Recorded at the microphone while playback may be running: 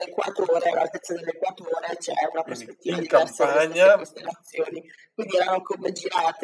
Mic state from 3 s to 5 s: both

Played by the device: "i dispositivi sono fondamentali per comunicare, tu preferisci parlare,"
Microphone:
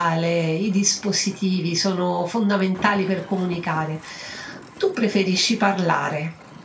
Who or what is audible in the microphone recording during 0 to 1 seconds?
echo only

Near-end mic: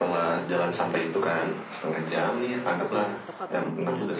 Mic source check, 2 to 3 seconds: both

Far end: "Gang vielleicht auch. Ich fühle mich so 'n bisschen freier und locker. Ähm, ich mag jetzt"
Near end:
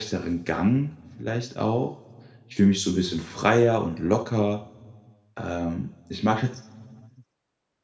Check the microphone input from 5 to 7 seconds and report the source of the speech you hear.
echo only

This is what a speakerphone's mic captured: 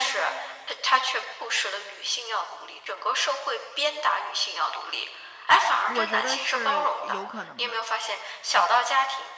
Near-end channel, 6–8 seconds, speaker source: both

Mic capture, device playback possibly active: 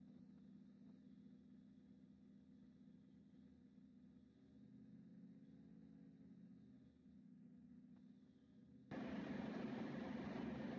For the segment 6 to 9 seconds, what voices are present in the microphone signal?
neither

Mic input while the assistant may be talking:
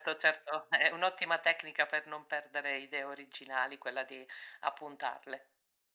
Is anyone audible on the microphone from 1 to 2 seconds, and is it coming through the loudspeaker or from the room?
echo only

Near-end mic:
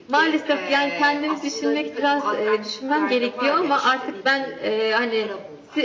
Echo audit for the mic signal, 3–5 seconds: both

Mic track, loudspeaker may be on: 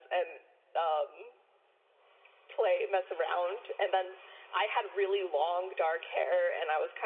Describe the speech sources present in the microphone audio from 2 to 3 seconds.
echo only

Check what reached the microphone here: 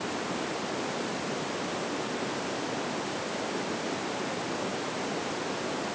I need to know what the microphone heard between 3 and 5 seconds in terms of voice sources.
neither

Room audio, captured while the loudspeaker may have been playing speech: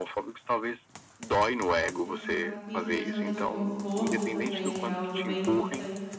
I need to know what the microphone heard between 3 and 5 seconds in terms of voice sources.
both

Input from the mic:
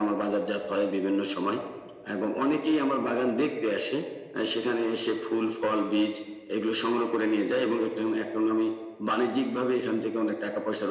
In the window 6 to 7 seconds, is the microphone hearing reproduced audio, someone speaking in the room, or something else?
echo only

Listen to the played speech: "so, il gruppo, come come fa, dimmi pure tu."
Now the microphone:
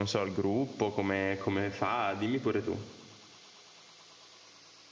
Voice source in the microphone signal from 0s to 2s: echo only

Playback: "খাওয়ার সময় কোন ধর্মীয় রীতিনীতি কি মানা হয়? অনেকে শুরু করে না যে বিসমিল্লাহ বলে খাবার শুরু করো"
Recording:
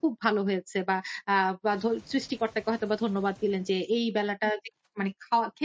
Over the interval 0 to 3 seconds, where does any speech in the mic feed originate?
user only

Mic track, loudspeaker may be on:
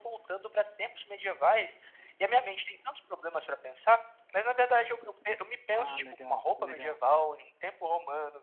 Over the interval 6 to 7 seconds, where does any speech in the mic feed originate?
both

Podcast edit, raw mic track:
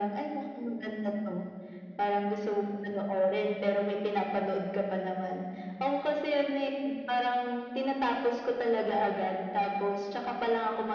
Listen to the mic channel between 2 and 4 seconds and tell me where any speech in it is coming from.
echo only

